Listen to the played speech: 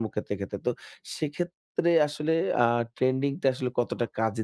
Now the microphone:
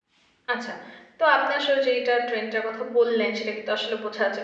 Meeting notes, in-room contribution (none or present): present